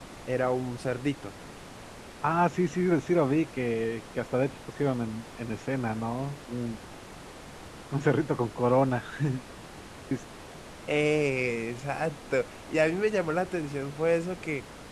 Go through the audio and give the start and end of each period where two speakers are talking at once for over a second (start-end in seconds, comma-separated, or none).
none